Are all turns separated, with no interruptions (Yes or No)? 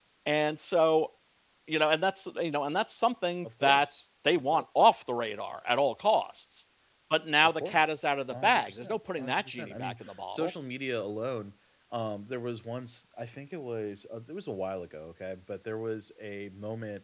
No